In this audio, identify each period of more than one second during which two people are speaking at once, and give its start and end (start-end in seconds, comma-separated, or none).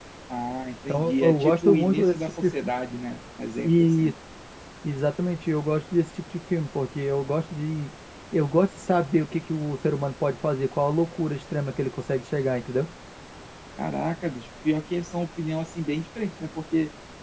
0.9-2.5